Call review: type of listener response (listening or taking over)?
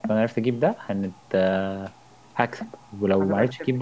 listening